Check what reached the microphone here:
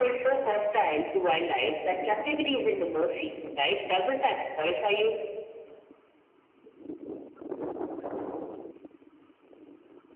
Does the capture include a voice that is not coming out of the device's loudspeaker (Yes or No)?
No